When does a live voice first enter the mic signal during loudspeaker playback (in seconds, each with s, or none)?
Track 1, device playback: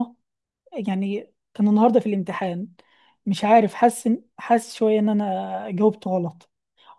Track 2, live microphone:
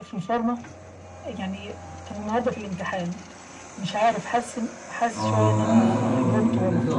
5.1 s